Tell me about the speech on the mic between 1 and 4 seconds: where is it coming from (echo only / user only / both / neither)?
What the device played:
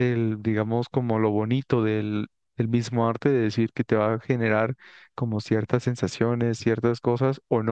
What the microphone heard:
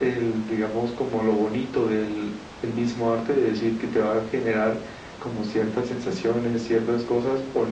echo only